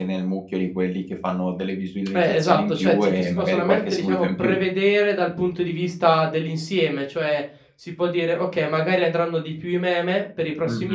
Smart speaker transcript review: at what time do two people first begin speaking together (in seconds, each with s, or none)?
2.2 s